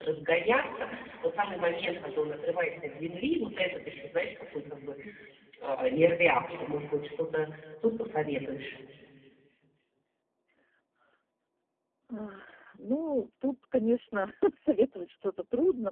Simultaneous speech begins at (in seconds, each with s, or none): none